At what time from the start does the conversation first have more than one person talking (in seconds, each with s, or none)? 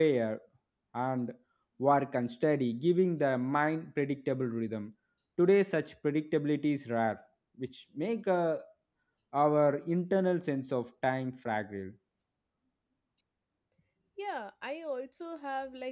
none